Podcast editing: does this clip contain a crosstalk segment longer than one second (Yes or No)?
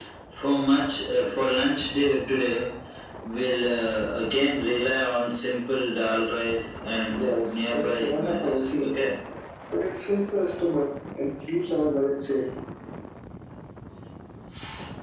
Yes